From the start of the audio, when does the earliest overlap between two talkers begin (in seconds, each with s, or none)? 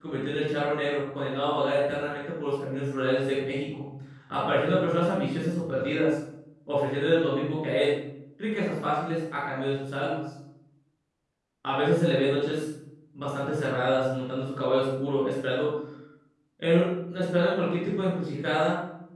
none